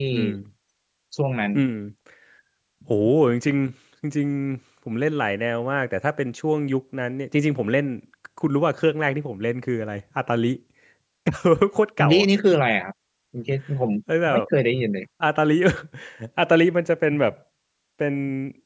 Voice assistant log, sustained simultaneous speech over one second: none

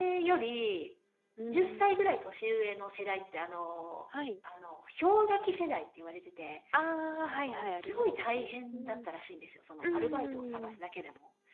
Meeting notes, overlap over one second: present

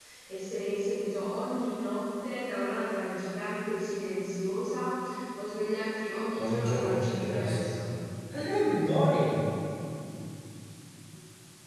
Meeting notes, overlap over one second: present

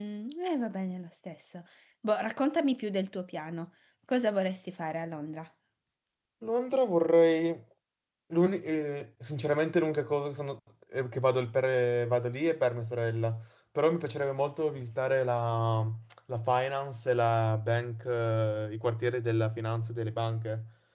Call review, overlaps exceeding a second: none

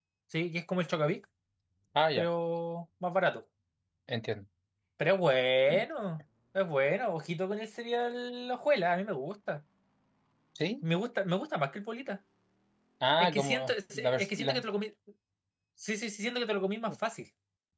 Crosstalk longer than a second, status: present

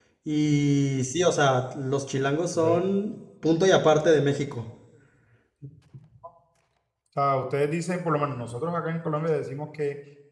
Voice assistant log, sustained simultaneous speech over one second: none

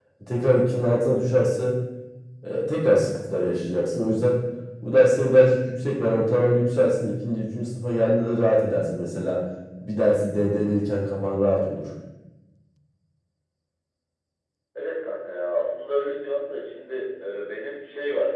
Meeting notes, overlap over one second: none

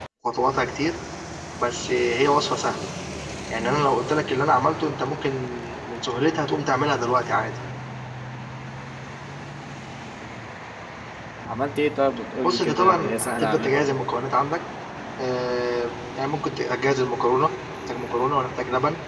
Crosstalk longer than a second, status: present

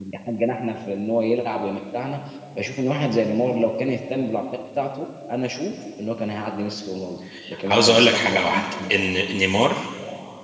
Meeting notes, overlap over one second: present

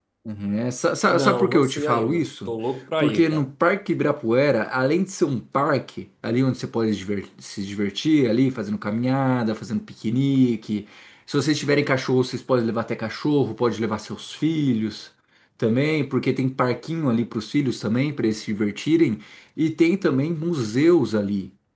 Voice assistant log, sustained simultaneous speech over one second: present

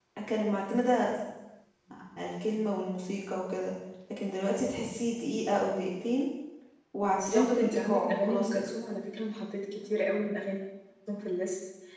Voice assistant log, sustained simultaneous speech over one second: present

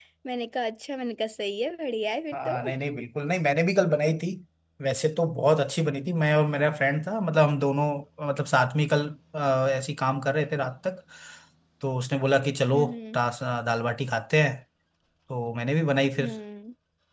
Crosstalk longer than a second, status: none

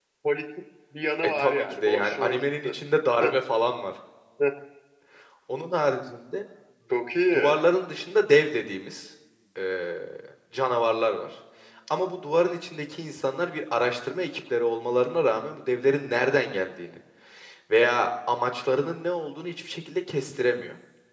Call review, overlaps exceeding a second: present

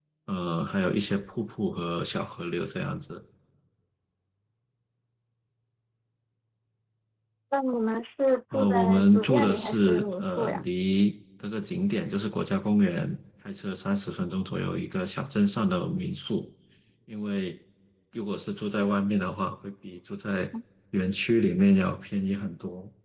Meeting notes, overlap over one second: present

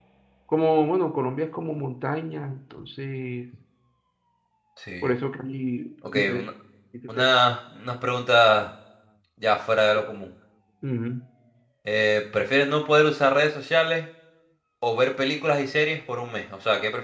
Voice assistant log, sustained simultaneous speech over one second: none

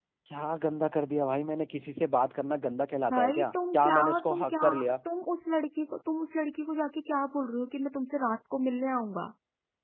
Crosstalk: present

